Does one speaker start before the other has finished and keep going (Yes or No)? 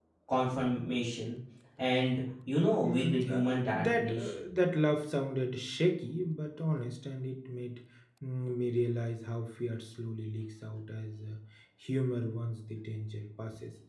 Yes